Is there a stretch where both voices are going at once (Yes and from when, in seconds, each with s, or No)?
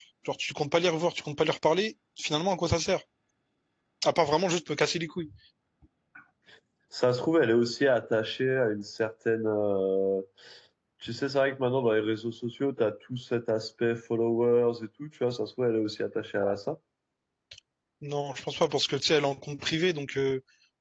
No